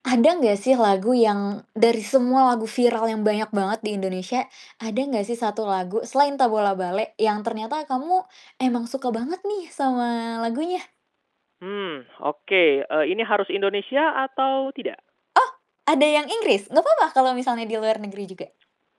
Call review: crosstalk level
none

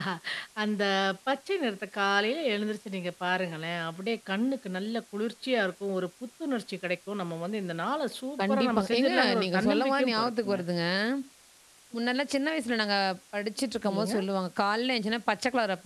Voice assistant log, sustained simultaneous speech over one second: present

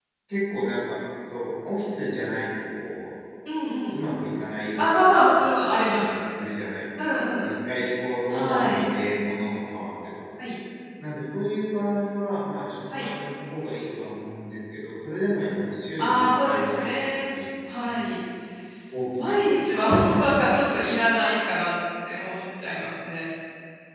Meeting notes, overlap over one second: present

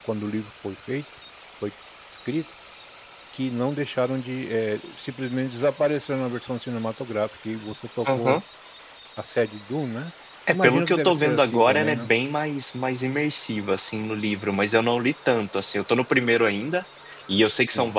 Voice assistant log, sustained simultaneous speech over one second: present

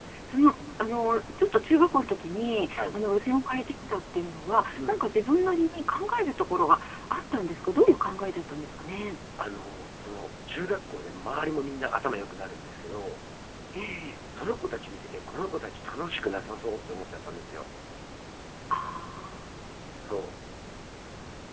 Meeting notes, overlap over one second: none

